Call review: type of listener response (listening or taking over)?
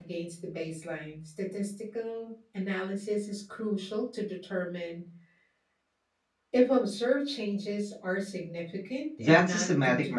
taking over